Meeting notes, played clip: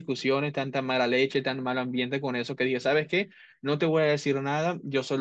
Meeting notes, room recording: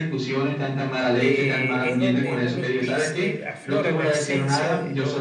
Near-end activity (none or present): present